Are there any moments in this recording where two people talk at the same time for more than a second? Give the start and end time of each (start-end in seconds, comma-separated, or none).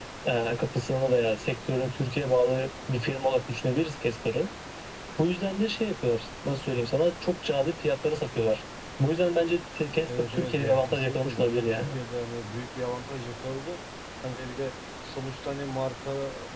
10.1-12.0